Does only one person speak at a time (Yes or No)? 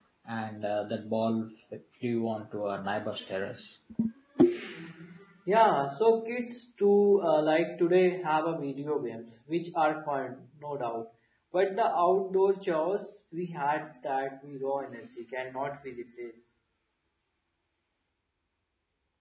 Yes